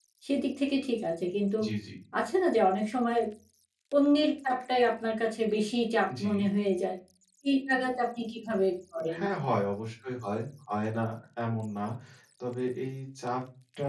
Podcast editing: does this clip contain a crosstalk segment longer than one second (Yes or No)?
No